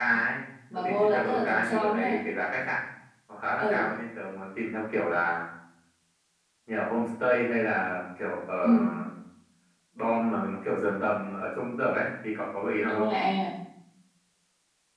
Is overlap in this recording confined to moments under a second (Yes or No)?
No